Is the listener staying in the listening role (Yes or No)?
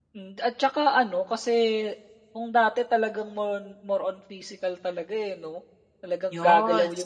Yes